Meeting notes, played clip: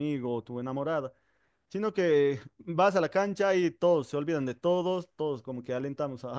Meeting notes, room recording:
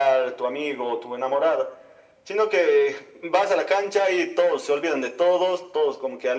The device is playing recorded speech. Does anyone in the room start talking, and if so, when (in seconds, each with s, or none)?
none